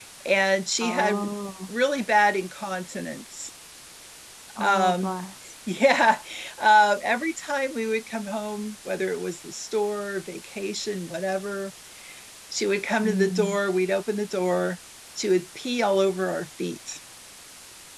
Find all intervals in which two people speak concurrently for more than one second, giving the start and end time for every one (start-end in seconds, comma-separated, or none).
none